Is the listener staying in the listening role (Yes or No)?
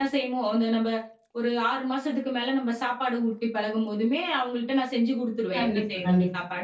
No